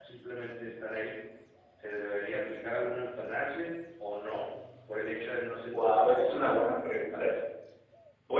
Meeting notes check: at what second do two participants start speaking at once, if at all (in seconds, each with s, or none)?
5.7 s